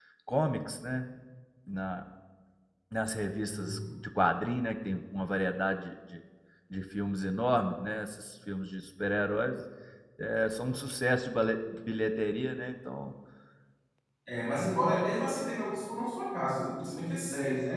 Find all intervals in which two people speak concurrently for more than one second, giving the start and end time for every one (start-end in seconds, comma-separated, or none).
none